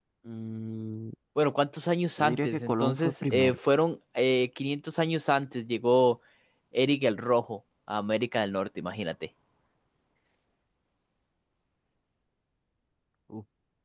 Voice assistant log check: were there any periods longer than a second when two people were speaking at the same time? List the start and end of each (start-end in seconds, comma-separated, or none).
2.2-3.6